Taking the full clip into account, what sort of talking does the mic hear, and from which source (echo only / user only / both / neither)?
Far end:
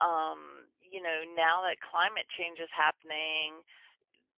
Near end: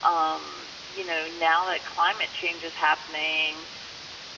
echo only